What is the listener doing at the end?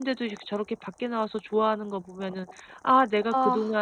listening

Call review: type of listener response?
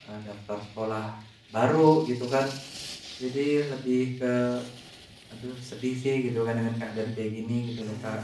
taking over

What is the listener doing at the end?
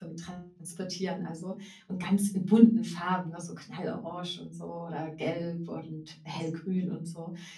listening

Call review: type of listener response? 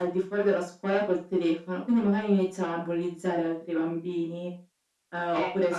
listening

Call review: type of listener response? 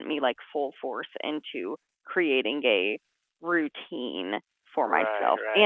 taking over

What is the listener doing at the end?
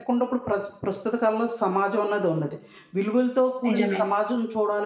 listening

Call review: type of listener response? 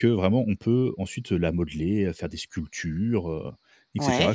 listening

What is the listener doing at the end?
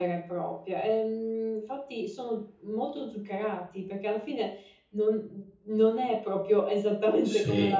taking over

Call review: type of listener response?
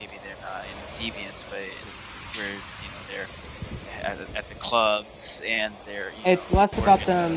taking over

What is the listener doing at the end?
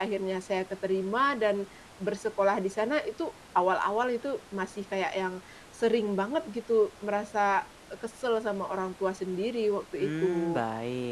taking over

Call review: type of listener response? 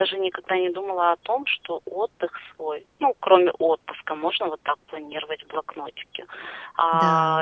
listening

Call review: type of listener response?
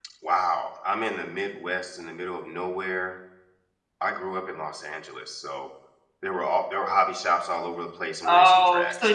taking over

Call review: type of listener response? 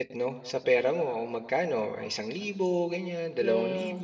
taking over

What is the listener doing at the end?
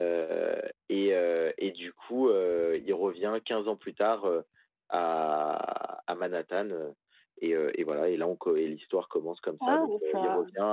listening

